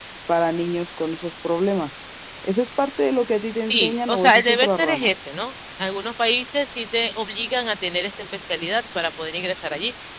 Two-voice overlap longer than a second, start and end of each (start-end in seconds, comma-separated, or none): 3.6-5.1